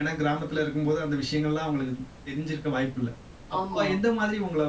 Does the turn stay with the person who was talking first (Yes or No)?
Yes